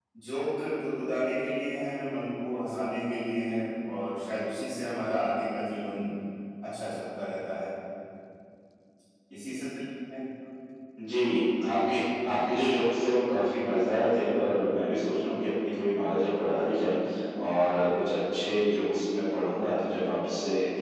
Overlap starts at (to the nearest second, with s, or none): none